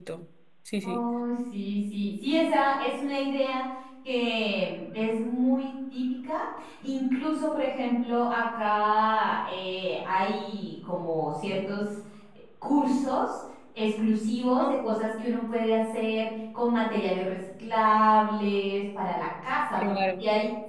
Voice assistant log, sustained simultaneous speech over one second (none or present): none